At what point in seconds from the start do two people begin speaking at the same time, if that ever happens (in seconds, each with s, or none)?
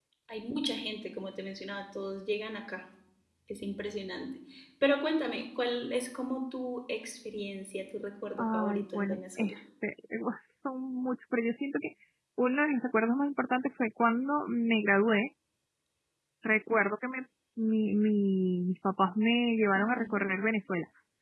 8.4 s